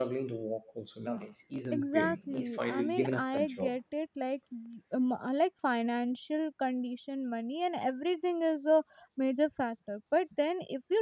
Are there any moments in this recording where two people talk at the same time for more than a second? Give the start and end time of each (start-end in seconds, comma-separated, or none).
1.7-3.7